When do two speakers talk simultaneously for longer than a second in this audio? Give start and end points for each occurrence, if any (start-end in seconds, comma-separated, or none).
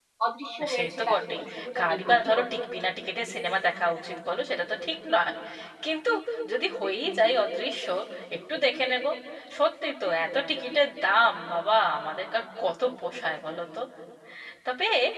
0.8-2.4